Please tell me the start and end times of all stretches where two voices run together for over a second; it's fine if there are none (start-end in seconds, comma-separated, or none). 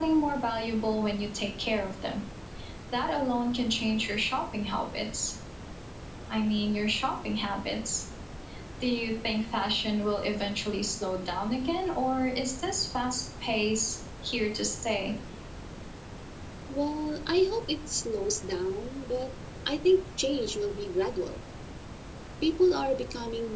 none